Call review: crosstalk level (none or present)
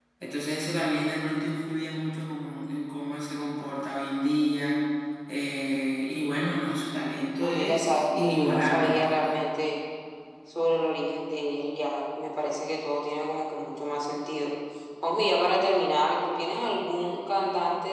present